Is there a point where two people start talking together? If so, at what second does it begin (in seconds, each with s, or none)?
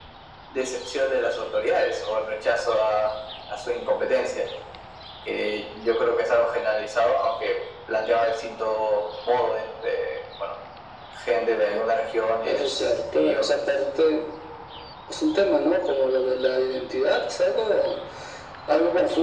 12.4 s